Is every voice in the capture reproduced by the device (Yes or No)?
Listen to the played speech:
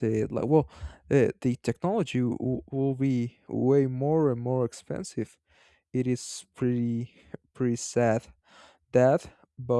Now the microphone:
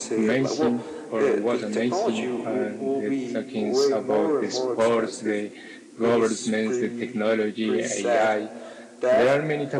No